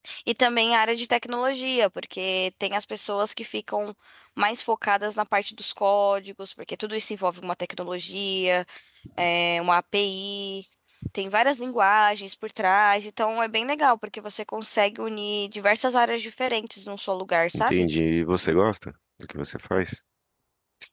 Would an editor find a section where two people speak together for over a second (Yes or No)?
No